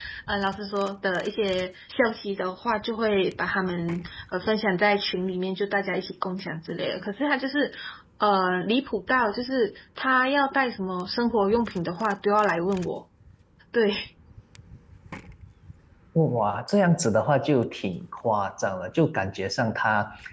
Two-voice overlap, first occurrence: none

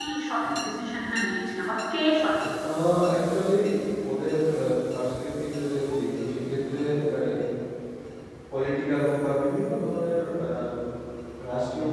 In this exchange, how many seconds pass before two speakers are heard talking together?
none

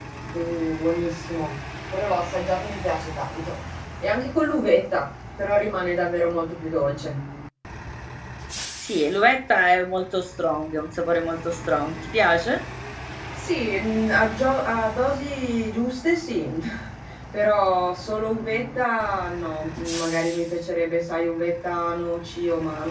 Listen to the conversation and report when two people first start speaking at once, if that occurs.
none

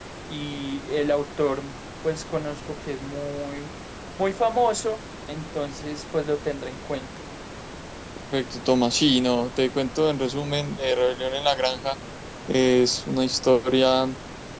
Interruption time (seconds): none

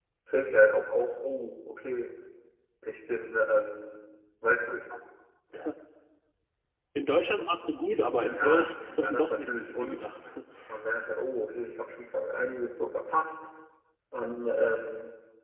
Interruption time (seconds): 8 s

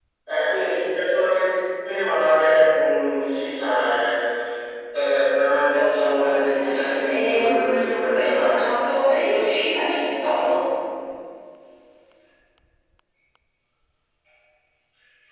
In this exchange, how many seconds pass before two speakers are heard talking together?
6 s

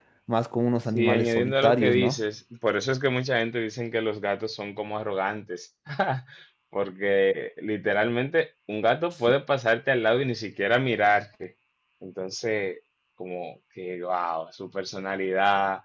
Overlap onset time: 1 s

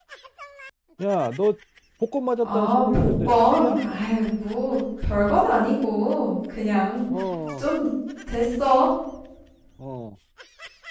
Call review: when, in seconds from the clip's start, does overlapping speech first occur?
2 s

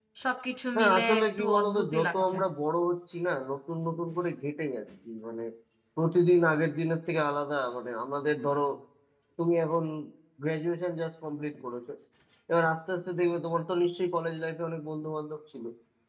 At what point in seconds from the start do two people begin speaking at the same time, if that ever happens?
1 s

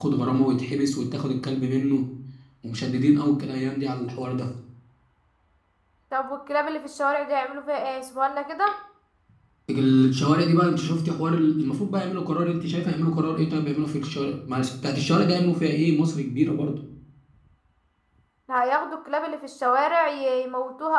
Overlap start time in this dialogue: none

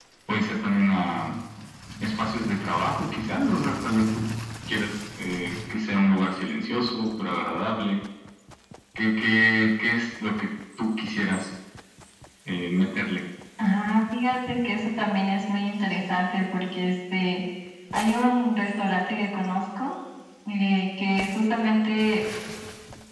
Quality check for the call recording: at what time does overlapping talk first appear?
none

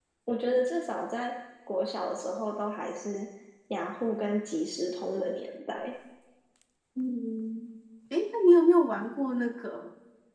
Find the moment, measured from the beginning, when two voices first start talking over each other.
none

